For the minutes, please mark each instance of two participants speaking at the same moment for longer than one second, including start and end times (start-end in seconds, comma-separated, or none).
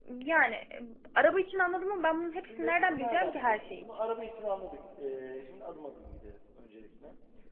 2.4-4.0